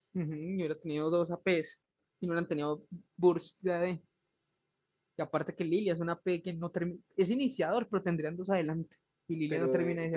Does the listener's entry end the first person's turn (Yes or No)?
Yes